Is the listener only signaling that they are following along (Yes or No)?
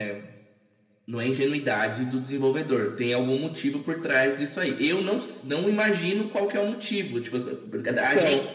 Yes